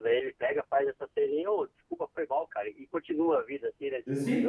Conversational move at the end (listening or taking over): taking over